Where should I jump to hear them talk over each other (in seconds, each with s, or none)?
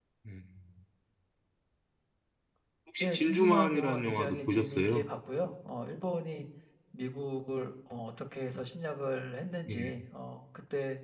3.0 s